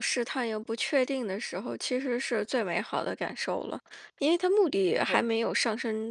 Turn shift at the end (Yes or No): No